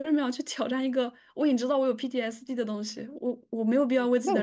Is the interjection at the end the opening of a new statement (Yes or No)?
Yes